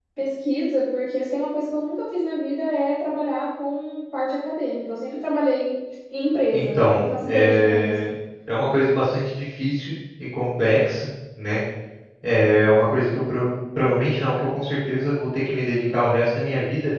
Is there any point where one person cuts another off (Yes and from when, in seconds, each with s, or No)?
Yes, from 6.5 s